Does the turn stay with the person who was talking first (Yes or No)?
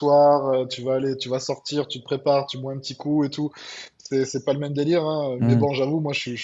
Yes